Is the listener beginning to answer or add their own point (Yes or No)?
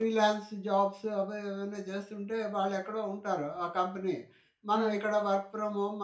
No